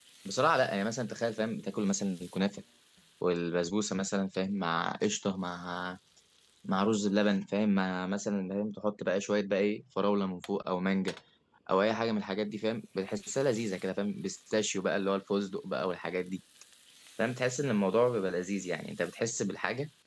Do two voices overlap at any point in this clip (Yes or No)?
No